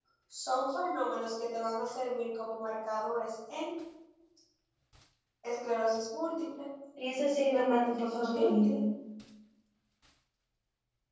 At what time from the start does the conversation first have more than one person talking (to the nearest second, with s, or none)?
7 s